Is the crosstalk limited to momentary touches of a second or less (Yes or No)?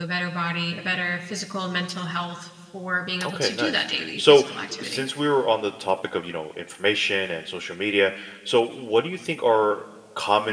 No